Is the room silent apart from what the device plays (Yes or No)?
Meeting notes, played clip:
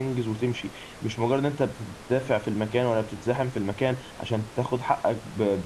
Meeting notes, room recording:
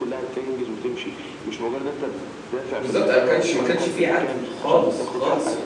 No